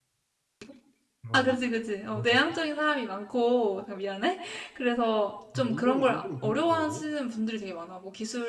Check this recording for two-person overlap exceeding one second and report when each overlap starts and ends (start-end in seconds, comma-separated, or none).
5.6-7.0